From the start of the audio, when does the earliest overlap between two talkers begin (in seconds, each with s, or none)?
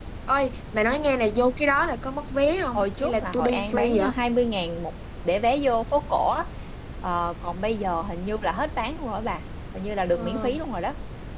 2.8 s